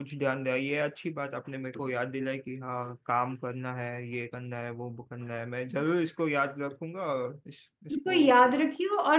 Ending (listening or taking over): taking over